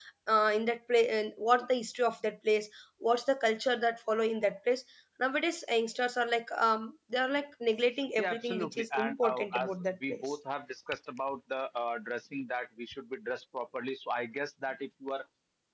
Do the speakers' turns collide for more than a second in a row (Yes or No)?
Yes